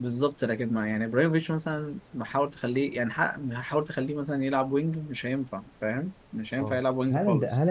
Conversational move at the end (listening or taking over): taking over